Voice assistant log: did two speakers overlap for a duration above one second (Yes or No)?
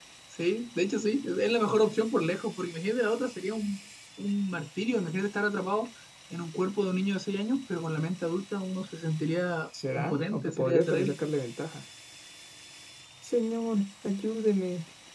Yes